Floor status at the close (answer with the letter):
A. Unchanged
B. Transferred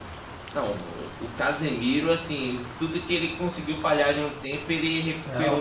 B